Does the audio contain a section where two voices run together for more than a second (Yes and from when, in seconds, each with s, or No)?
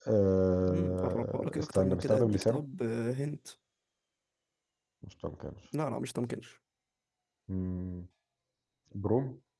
Yes, from 0.7 s